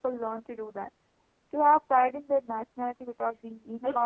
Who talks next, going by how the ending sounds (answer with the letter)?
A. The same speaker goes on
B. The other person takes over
B